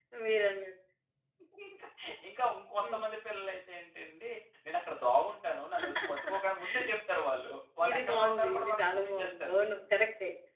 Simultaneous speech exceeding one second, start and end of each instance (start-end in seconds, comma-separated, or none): 7.9-9.6